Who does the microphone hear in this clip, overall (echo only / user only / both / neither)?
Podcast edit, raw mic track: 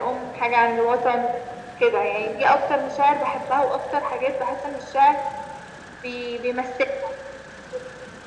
echo only